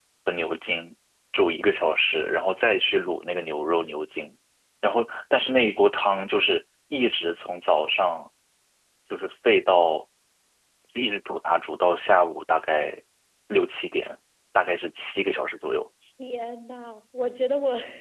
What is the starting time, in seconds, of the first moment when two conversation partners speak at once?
none

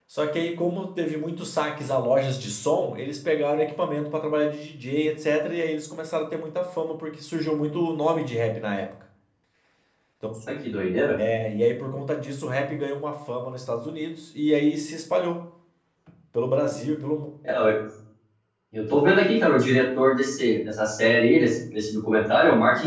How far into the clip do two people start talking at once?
none

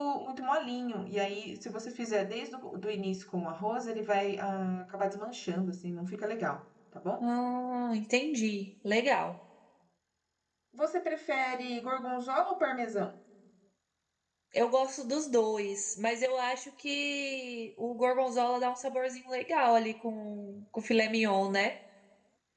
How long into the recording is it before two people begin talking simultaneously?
none

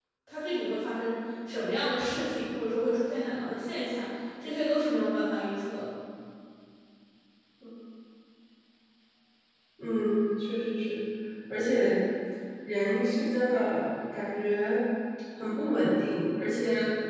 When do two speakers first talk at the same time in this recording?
none

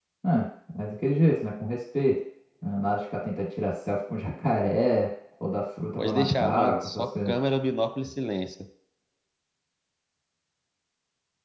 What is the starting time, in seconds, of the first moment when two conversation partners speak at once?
6.0 s

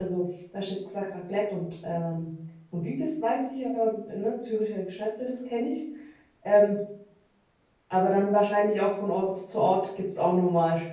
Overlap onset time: none

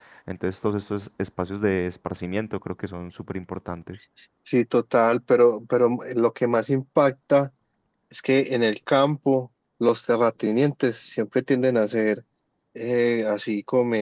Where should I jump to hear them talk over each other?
none

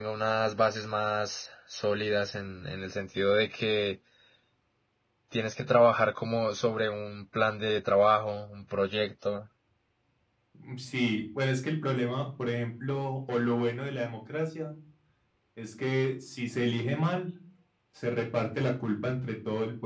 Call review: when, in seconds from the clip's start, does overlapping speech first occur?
none

